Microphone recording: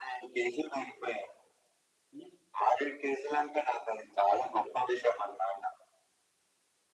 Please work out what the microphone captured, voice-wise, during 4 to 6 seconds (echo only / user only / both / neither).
echo only